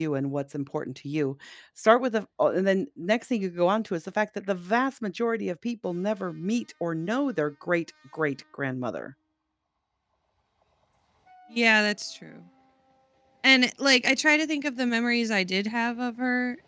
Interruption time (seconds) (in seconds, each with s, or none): none